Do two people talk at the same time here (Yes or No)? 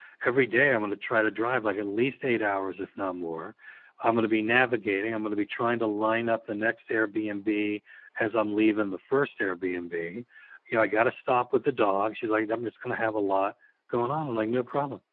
No